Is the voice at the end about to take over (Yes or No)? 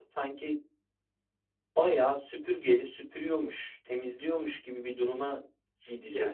Yes